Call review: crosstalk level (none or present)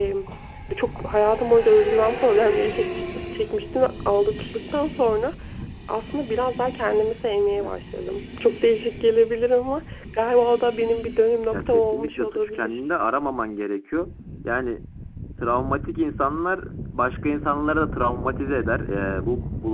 present